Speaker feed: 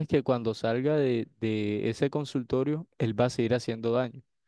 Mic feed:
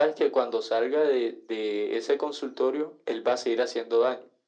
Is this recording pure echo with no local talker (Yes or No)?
Yes